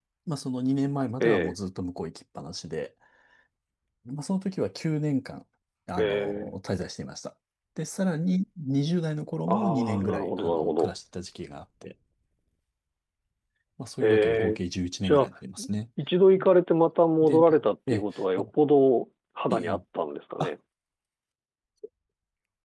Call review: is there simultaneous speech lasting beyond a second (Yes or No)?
Yes